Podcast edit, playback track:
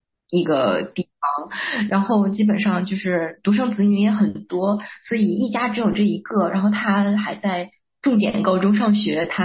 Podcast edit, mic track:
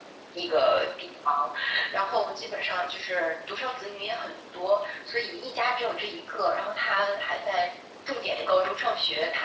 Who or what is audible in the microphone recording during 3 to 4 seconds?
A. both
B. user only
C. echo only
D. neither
C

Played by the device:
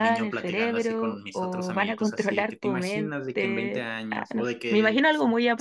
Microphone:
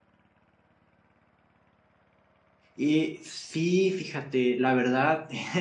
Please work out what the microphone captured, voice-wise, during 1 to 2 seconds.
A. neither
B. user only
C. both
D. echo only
A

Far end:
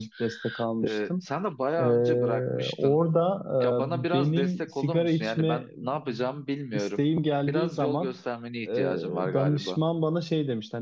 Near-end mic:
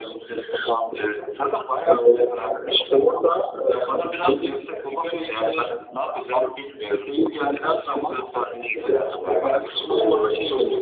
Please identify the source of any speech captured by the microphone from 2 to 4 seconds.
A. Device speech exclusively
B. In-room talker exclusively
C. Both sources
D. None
A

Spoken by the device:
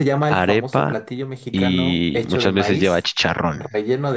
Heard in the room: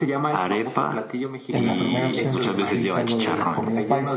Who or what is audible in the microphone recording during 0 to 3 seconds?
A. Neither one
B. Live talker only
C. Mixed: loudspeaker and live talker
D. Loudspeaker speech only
C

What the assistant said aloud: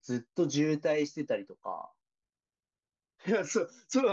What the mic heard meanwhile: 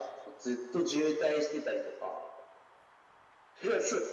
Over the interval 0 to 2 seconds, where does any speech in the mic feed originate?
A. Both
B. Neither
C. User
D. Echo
D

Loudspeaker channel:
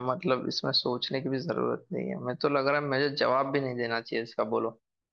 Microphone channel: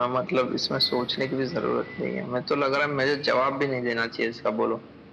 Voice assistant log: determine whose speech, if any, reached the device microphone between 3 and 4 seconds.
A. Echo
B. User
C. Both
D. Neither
A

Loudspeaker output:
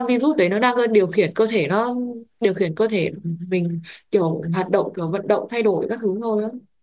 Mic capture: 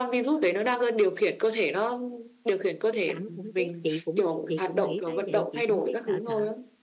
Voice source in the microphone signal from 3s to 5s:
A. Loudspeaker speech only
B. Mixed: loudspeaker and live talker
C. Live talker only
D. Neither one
B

